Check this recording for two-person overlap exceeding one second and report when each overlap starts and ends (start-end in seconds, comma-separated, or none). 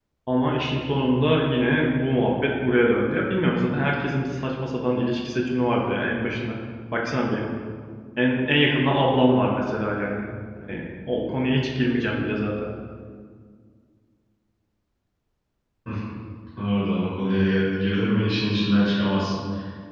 none